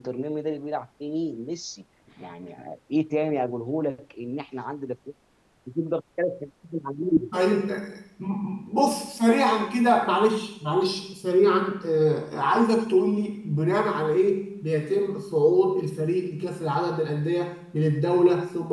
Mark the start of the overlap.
none

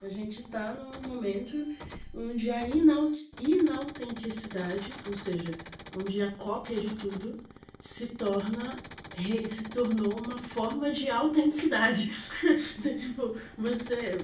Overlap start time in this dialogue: none

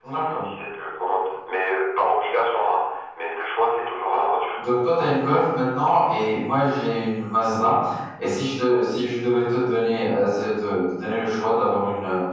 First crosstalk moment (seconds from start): none

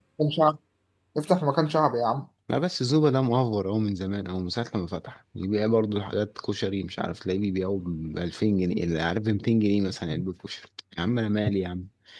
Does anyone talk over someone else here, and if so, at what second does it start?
none

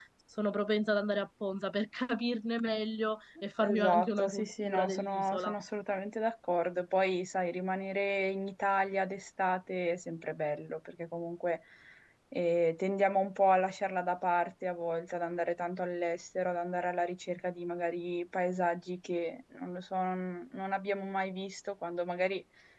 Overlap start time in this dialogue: 3.6 s

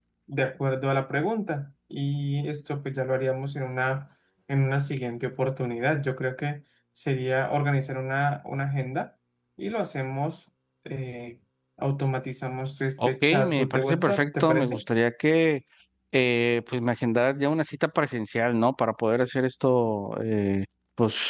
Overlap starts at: 13.0 s

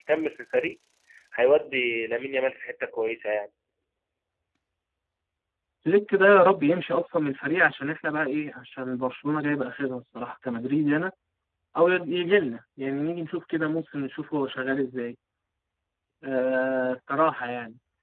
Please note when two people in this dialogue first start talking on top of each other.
none

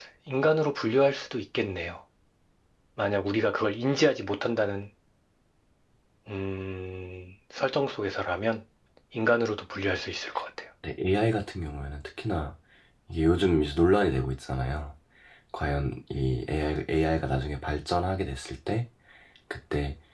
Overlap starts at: none

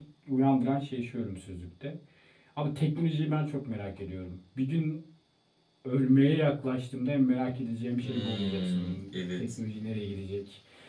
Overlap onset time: 8.0 s

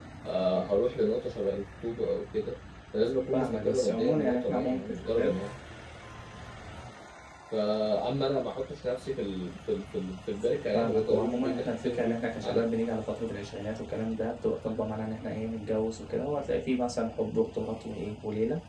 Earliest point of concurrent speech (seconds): 3.3 s

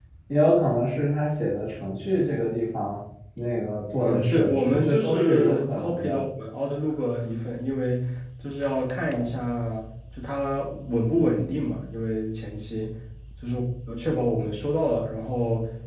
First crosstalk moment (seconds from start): 4.0 s

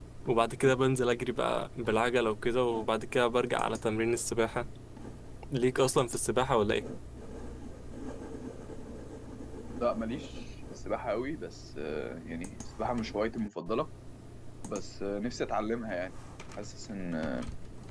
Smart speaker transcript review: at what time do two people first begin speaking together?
none

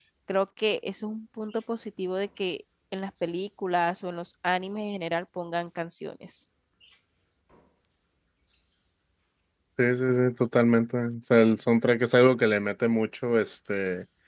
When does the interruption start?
none

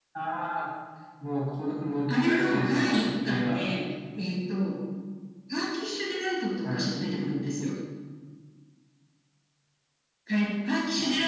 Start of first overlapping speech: 2.3 s

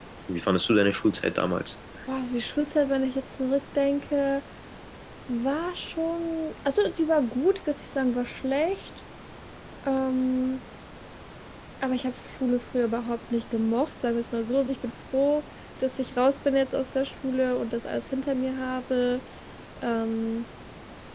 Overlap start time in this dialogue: none

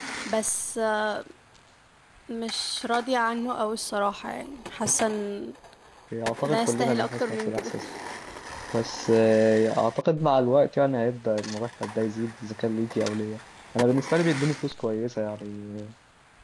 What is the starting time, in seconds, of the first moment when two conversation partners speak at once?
6.4 s

